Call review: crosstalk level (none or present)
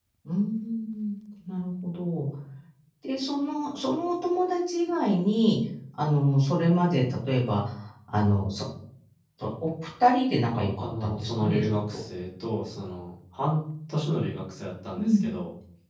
present